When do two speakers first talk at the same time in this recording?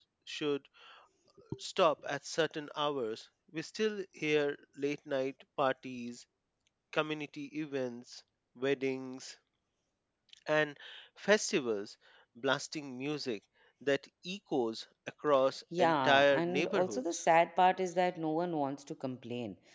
15.7 s

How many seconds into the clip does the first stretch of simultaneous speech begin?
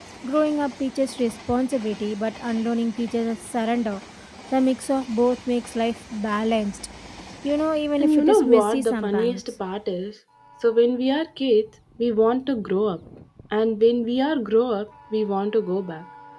8.0 s

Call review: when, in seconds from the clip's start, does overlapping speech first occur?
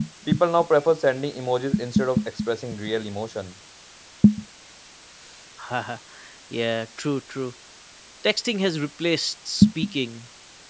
none

